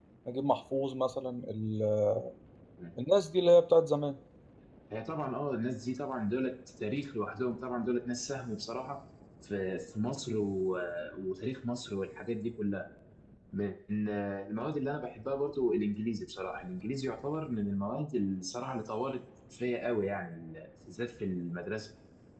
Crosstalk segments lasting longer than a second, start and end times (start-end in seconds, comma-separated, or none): none